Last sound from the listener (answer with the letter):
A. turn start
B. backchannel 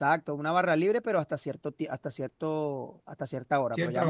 B